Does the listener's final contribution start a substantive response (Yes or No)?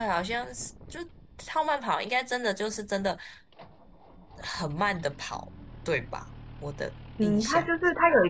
Yes